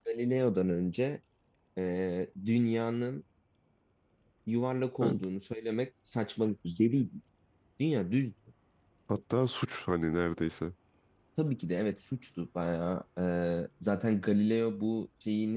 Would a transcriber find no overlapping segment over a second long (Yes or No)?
Yes